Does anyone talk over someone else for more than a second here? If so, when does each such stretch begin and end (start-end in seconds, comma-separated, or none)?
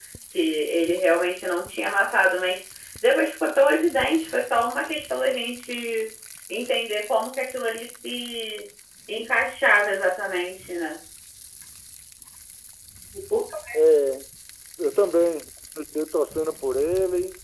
none